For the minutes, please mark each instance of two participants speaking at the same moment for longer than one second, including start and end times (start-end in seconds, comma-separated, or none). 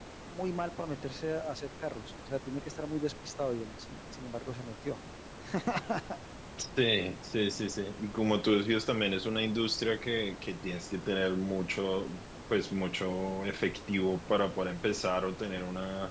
none